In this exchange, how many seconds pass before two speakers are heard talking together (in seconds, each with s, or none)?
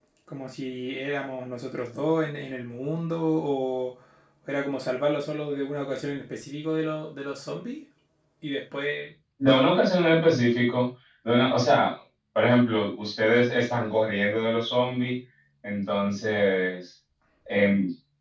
none